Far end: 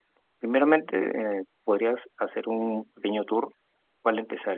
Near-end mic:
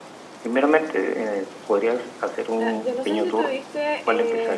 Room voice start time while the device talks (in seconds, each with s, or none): 2.6 s